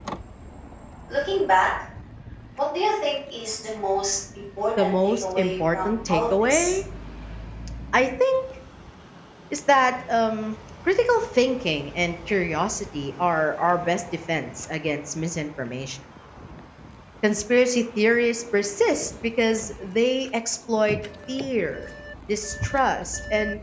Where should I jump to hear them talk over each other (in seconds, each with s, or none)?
4.8 s